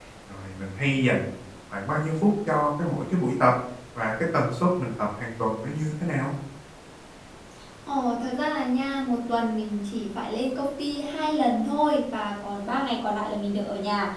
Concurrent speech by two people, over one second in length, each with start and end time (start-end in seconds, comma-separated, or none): none